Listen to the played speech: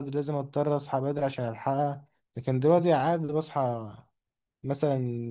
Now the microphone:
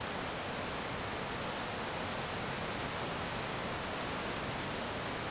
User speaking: No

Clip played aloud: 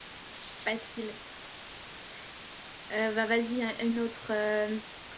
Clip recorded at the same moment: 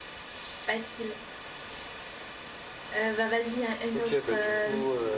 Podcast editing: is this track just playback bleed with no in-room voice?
No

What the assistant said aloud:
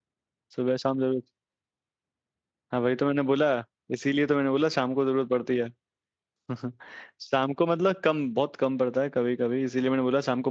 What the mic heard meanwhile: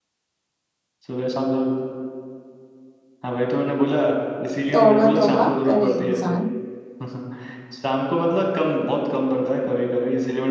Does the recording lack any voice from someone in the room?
No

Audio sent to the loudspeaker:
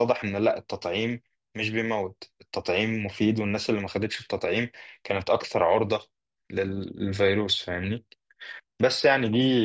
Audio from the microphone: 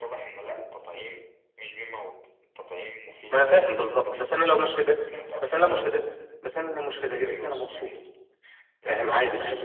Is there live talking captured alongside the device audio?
Yes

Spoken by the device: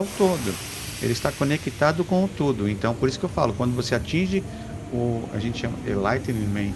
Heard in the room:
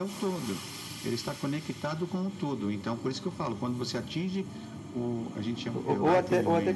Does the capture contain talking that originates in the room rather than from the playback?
Yes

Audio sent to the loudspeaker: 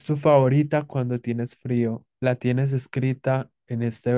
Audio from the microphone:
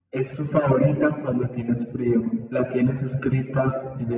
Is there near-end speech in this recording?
No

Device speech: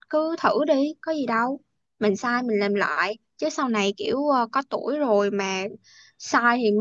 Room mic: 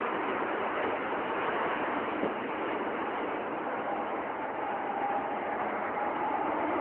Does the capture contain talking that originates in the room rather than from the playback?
No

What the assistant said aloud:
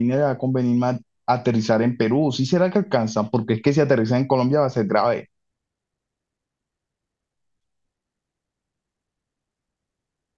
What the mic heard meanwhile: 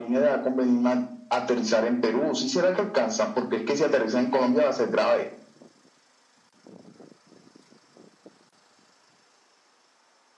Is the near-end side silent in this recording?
Yes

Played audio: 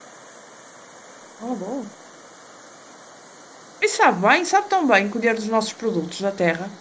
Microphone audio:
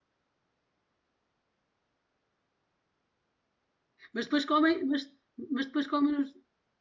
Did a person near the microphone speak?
Yes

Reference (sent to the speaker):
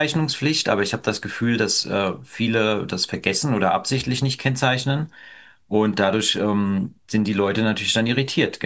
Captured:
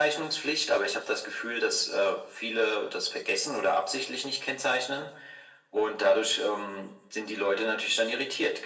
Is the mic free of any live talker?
Yes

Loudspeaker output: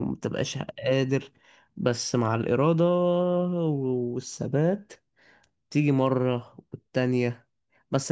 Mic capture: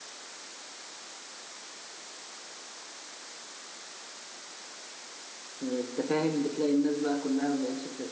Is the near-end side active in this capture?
Yes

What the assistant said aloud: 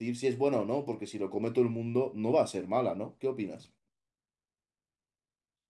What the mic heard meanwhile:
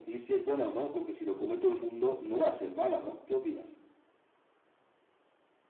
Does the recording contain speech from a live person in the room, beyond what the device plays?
No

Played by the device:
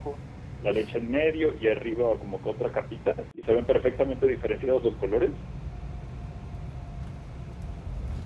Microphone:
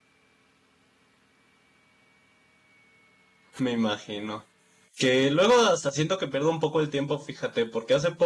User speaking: Yes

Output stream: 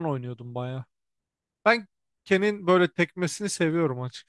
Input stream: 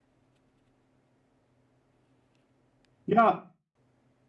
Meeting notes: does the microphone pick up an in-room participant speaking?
Yes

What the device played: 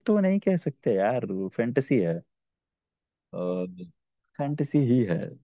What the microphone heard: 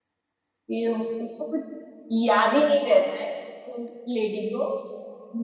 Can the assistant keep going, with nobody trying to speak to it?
No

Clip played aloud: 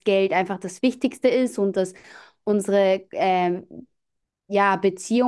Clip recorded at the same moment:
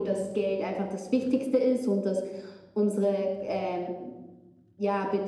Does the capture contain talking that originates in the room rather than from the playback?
No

